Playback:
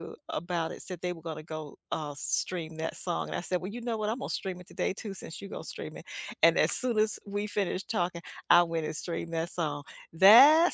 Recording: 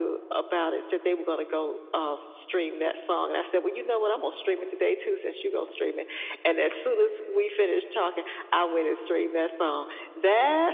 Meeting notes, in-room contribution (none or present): none